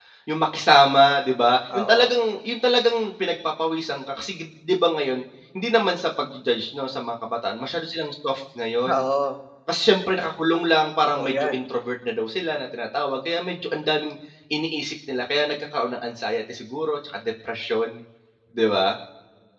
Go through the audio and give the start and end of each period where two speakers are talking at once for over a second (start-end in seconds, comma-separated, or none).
none